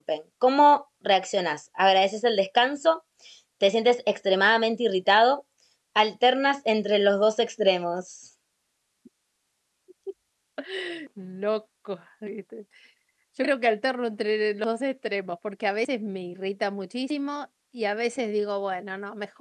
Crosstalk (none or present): none